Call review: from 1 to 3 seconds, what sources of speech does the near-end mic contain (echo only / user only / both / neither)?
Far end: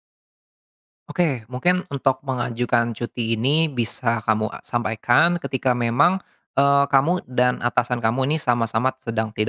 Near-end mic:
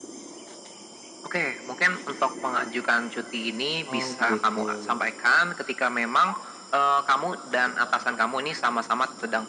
echo only